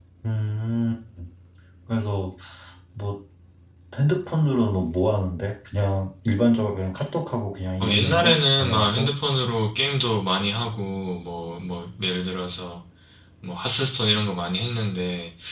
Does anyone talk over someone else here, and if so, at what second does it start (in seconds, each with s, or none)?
7.8 s